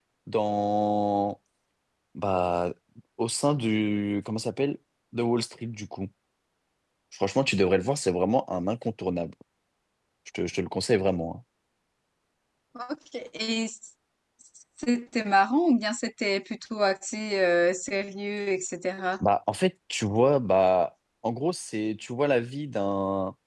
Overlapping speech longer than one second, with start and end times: none

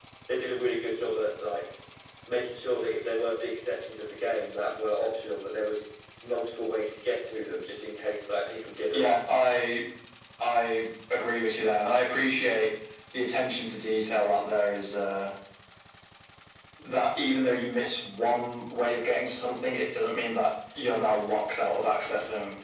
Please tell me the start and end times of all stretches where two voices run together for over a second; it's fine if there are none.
none

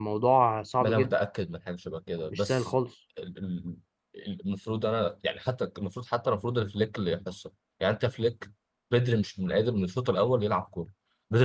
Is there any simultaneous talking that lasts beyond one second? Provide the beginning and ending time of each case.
none

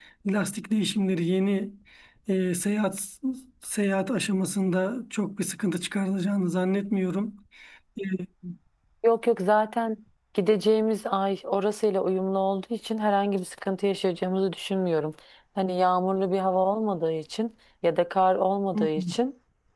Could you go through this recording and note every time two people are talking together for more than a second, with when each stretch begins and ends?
none

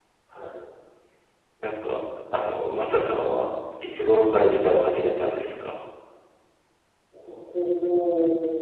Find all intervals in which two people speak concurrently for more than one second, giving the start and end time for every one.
none

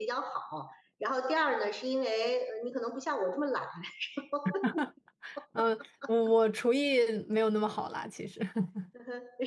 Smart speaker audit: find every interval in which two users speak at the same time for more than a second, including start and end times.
none

